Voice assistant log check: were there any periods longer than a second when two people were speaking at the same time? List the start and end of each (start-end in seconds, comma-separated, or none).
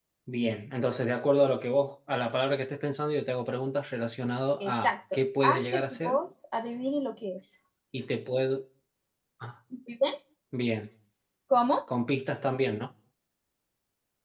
4.6-6.2